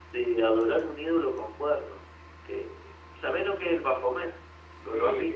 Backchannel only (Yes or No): No